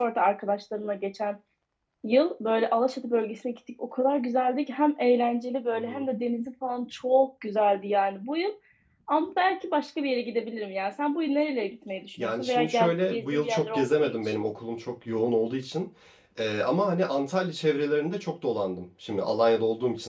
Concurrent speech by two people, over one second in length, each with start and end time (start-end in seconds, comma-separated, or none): 12.2-14.2